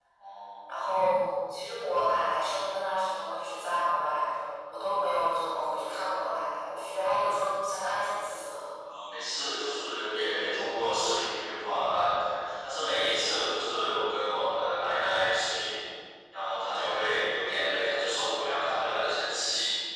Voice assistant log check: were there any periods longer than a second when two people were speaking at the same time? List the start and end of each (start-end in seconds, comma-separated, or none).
none